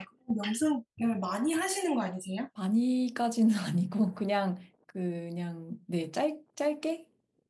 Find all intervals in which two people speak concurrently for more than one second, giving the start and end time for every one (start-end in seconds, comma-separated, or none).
none